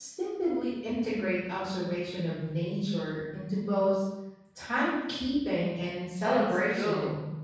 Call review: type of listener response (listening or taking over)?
taking over